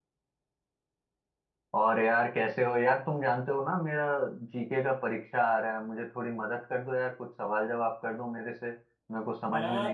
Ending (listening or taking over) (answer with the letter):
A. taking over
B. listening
A